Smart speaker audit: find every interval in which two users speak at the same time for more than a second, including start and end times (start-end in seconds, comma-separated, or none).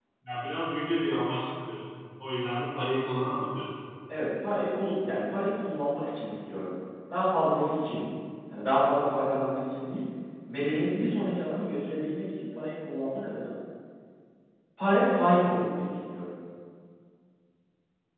none